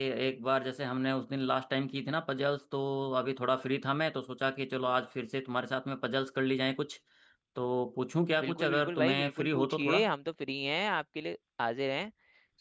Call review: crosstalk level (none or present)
present